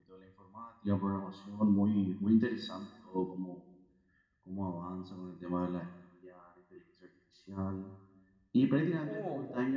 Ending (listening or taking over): listening